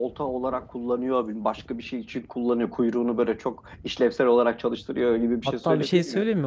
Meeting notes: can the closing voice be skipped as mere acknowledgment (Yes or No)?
No